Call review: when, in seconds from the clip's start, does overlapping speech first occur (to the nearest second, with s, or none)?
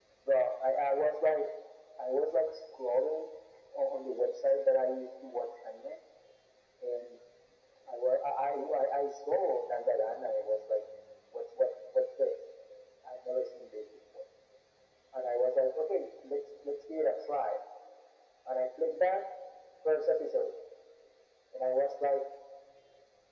none